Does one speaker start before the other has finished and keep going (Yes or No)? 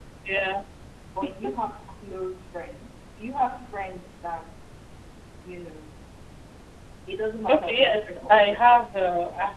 Yes